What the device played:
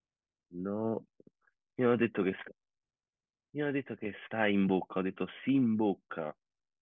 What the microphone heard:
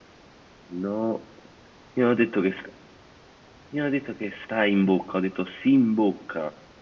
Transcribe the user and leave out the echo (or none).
none